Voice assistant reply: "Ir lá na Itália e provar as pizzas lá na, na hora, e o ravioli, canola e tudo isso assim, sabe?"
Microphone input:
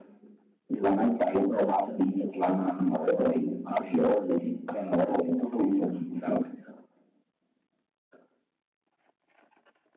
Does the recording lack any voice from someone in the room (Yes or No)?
Yes